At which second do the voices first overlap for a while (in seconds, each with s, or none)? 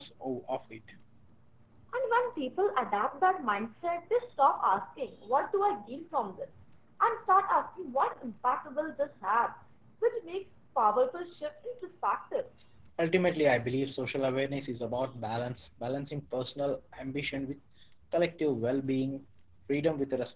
none